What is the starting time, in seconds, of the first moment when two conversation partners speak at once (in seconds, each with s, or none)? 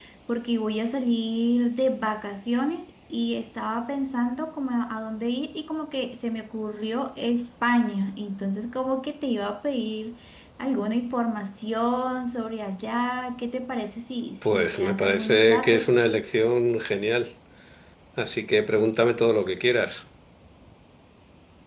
14.4 s